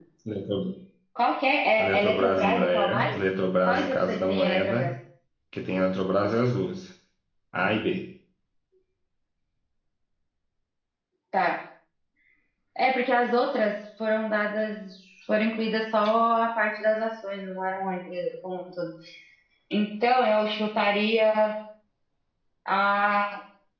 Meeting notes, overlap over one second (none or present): present